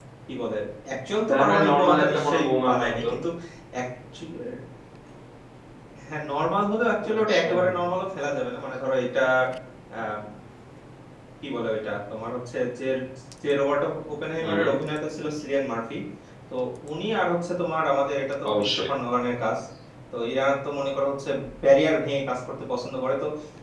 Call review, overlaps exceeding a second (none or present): present